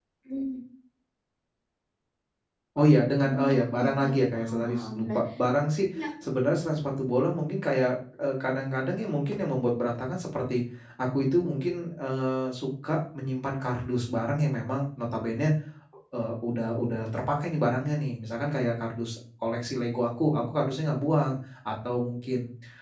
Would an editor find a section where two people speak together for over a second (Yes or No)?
Yes